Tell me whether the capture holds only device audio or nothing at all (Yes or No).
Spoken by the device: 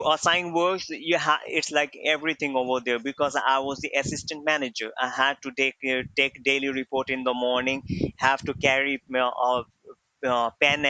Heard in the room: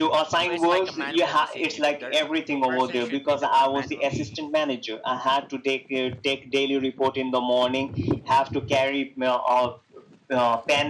No